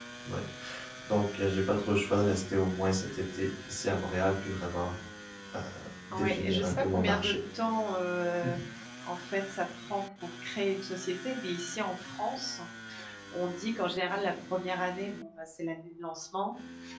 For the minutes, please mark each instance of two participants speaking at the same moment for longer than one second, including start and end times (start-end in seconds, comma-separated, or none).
6.1-7.3